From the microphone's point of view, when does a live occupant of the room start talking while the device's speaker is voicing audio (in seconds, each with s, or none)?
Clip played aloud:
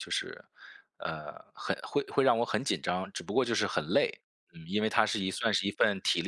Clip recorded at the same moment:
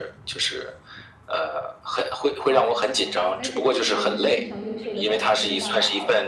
2.5 s